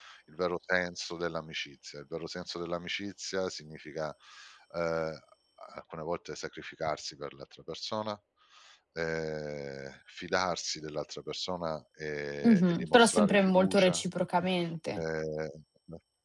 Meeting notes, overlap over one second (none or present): present